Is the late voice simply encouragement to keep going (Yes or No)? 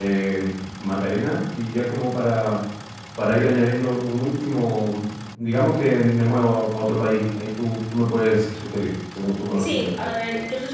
No